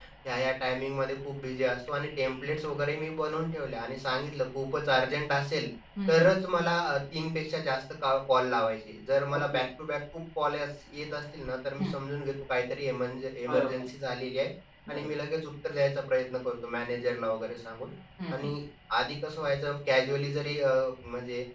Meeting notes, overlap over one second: none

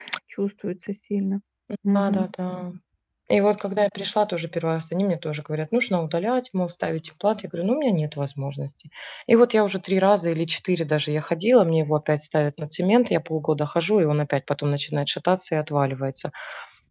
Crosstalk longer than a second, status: none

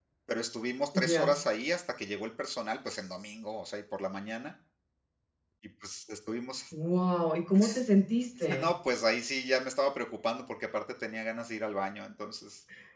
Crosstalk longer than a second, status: none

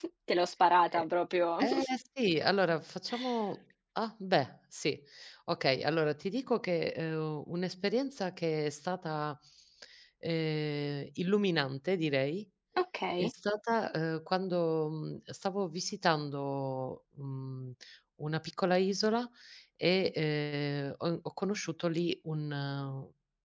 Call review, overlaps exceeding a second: none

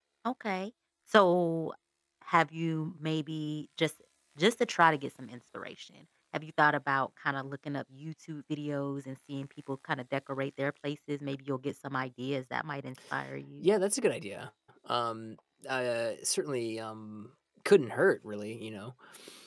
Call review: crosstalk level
none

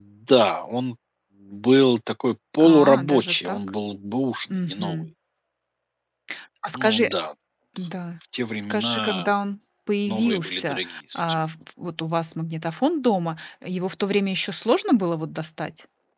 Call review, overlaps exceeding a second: present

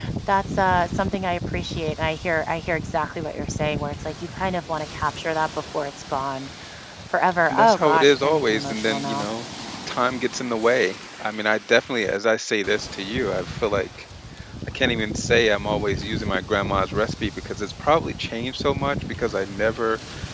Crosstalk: present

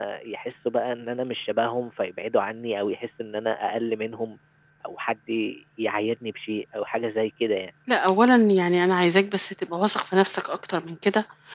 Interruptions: none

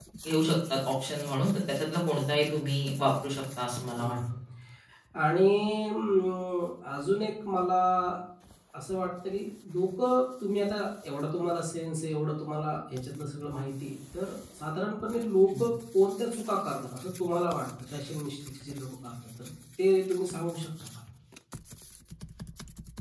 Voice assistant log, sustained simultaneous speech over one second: none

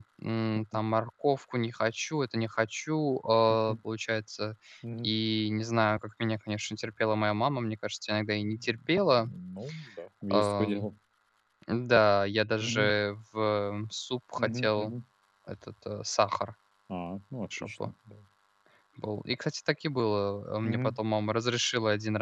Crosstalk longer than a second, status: none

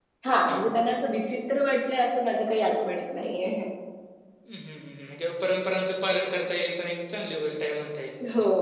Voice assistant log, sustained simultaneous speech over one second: none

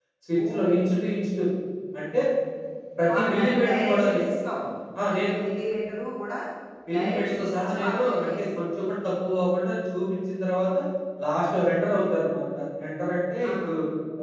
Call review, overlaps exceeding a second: present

